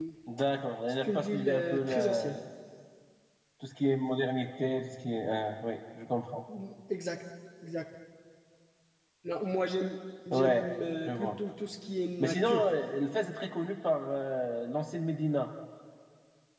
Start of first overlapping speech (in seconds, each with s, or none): 1.0 s